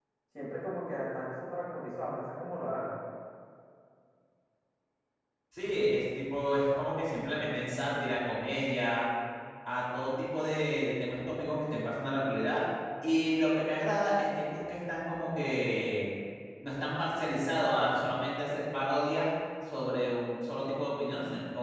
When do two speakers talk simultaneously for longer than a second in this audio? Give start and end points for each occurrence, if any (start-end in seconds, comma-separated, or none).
none